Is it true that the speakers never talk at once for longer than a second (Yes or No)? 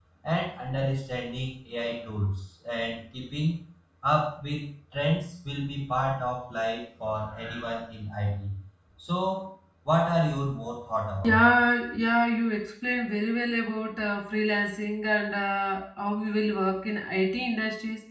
Yes